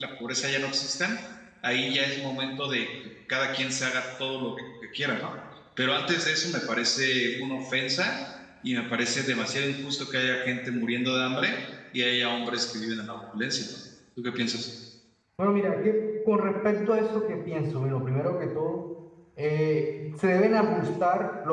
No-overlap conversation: Yes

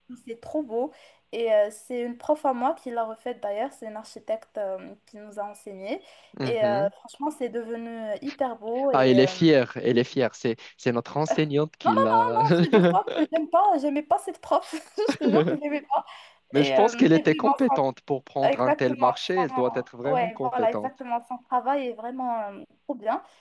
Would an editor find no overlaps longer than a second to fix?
No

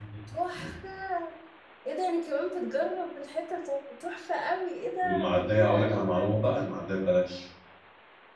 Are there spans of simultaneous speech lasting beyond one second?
Yes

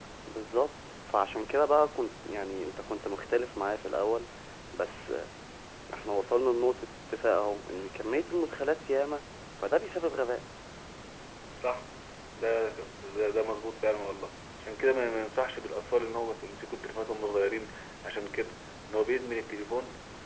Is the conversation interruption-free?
Yes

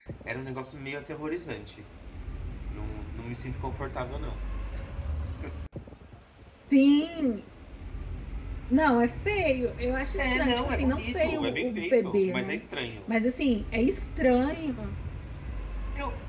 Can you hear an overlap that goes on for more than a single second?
Yes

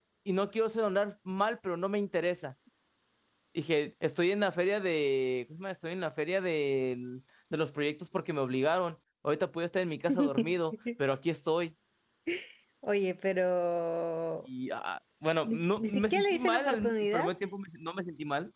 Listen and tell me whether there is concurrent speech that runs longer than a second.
Yes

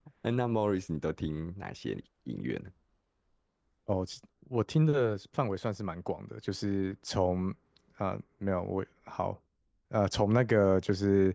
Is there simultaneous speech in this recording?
No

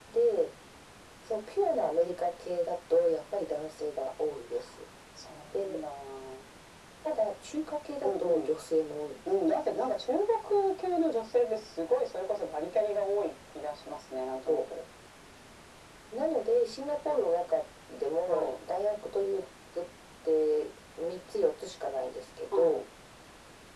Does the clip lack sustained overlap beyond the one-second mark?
Yes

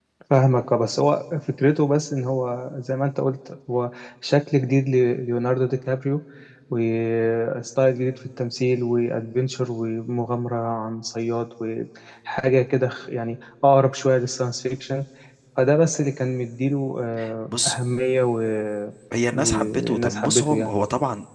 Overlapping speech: Yes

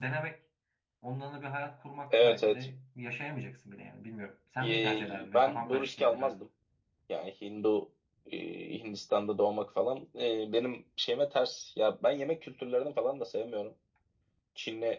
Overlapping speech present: Yes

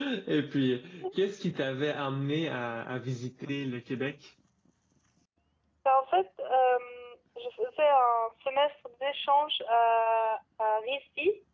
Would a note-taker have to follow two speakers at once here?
No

